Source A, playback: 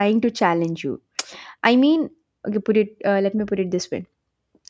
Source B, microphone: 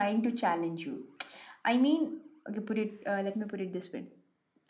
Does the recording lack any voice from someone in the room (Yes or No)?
Yes